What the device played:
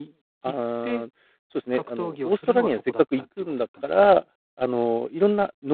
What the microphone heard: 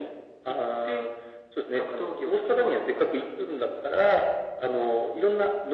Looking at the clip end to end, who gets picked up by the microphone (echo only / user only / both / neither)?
echo only